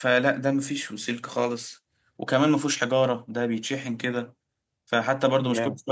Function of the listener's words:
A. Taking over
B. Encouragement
B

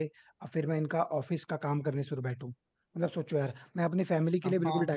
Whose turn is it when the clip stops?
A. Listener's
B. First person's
A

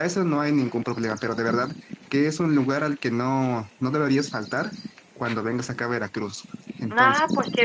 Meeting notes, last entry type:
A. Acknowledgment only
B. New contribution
B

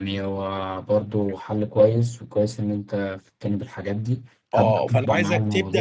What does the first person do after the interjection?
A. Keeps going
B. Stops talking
B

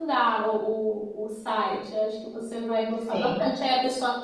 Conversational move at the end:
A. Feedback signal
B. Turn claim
A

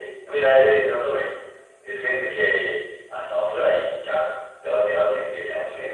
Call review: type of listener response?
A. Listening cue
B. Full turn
B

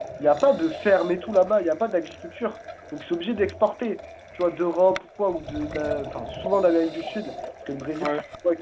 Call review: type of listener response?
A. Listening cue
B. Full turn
A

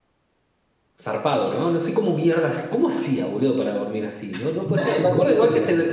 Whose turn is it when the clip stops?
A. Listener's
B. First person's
B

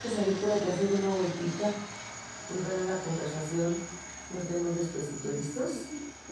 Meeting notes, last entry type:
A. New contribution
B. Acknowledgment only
A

